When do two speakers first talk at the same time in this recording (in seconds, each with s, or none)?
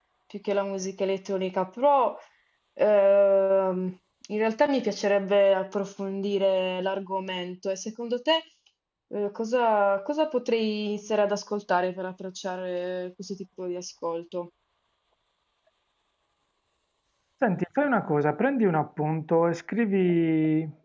none